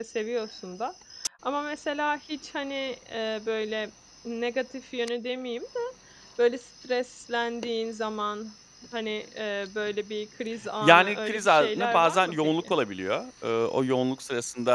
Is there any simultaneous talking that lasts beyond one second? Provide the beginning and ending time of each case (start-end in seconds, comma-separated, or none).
10.8-12.7